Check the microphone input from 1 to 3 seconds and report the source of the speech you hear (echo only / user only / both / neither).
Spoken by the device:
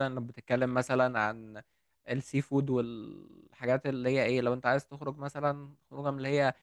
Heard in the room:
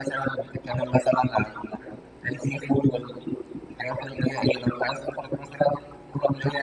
echo only